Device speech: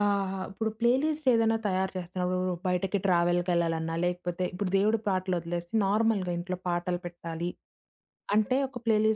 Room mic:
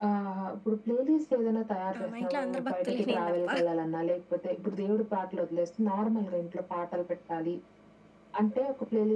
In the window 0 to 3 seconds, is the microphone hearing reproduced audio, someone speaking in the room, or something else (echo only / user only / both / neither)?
both